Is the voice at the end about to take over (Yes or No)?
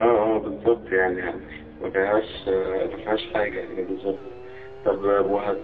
No